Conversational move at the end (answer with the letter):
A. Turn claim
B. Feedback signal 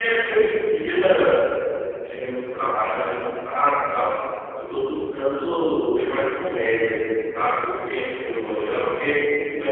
B